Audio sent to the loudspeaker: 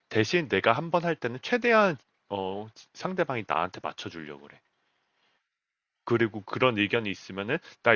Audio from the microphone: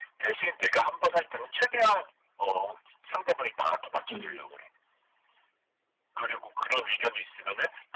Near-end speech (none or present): present